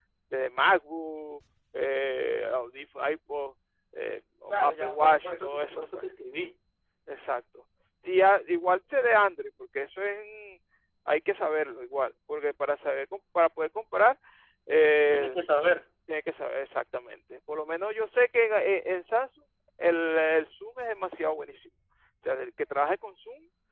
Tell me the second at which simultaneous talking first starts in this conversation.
4.6 s

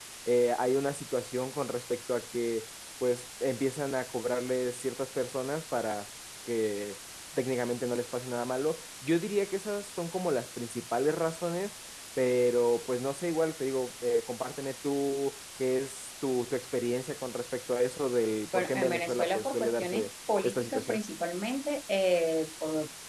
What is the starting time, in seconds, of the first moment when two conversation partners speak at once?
18.5 s

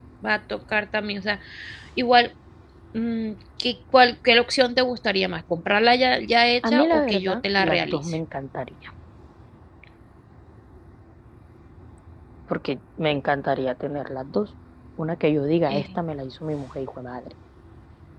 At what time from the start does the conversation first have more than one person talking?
6.6 s

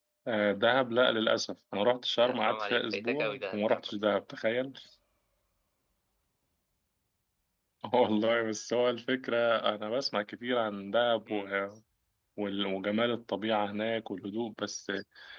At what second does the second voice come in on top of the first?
2.2 s

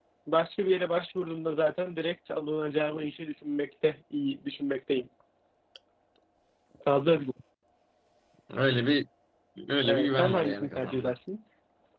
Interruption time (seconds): 9.8 s

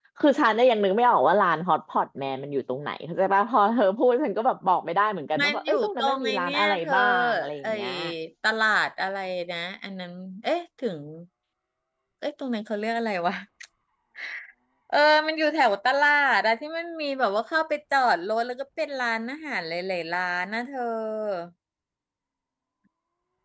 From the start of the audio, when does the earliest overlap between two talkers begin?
5.3 s

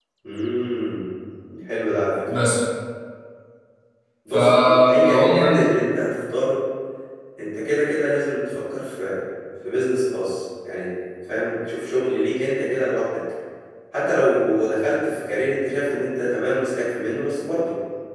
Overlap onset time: 4.3 s

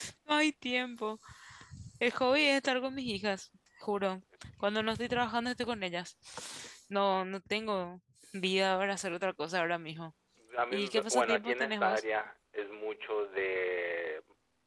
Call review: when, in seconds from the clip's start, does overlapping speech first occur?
10.7 s

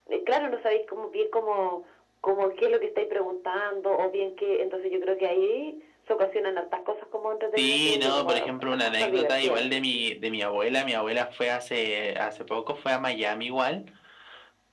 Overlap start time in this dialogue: 7.6 s

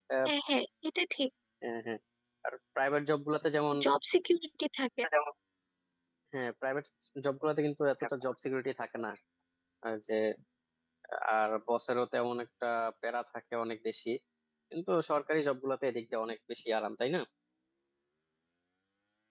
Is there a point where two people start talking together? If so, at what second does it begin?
none

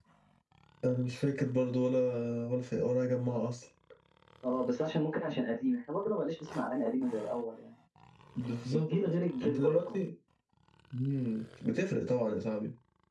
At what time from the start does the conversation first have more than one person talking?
8.7 s

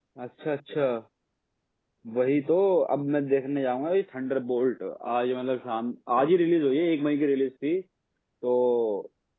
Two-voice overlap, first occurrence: none

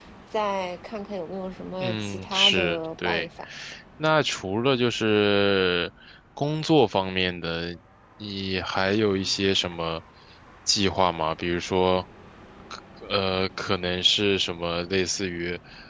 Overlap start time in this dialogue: 1.8 s

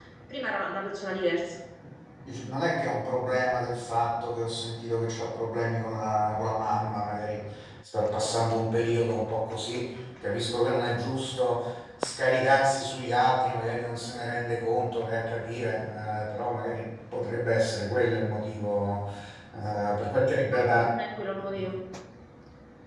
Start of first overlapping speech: none

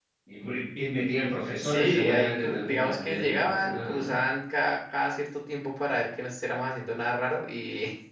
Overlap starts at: 1.6 s

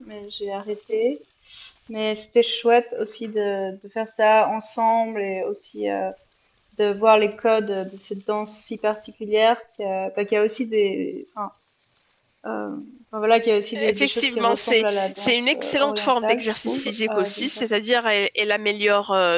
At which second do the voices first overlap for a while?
13.8 s

